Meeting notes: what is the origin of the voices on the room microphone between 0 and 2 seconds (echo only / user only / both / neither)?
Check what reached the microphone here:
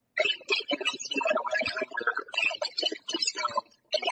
echo only